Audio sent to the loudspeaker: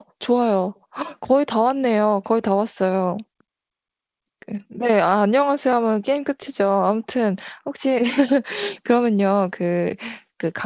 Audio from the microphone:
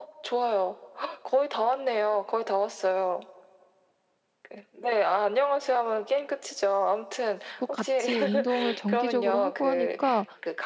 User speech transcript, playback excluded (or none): 뭐 같이 운동을 정기적으로 하고 하니까